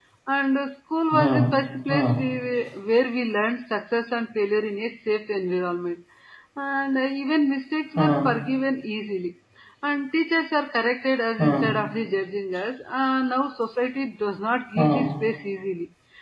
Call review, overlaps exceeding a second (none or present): none